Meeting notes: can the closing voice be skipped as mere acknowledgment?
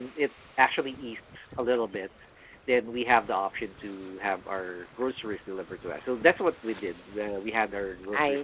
Yes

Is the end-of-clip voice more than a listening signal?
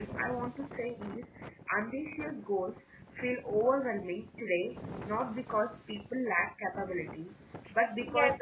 Yes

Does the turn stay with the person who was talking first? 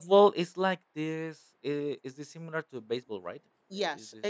No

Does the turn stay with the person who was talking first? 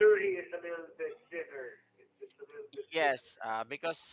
No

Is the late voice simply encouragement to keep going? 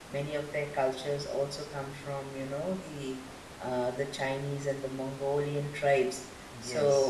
No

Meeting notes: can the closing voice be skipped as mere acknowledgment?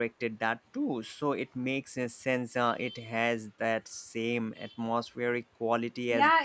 No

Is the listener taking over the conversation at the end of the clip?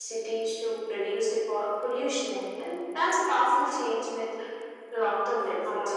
Yes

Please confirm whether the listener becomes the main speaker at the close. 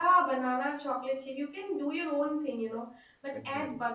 No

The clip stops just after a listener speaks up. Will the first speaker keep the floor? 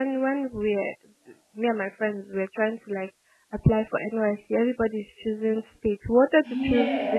Yes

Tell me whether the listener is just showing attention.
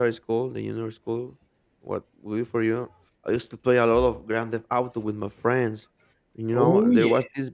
Yes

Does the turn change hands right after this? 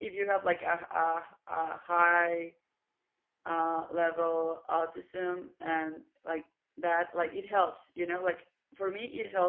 No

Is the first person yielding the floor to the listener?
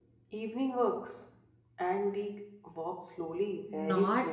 Yes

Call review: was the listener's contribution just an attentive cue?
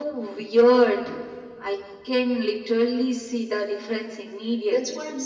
No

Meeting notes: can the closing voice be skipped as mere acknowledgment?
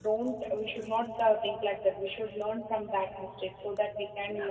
Yes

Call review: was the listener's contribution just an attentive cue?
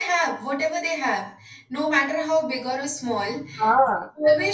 Yes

